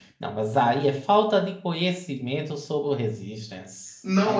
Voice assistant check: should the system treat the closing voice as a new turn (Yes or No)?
Yes